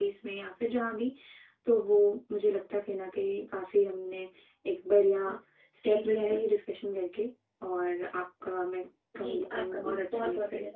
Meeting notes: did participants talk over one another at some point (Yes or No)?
Yes